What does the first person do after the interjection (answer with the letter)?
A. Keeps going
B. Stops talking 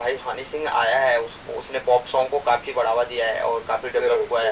A